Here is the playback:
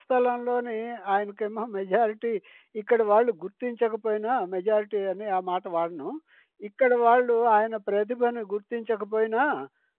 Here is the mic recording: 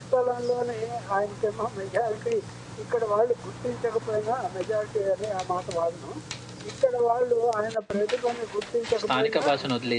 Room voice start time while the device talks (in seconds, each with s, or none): 9.0 s